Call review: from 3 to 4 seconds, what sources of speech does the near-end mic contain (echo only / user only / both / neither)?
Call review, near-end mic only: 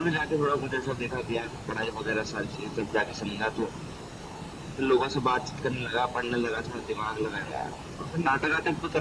echo only